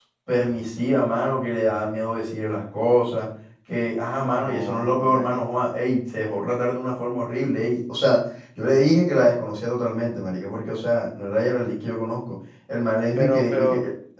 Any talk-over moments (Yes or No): Yes